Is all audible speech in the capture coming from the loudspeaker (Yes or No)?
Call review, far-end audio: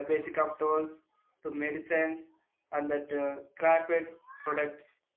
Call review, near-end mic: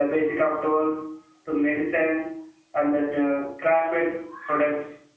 Yes